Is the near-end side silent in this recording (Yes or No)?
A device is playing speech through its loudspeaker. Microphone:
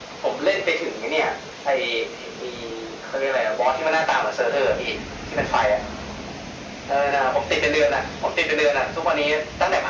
Yes